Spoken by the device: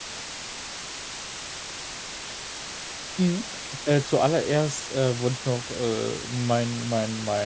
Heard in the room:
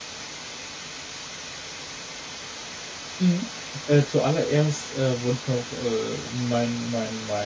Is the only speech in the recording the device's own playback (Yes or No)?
Yes